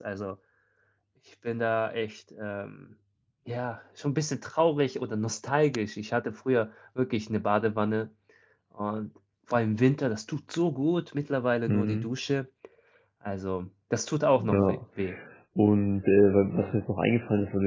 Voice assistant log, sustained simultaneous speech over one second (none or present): none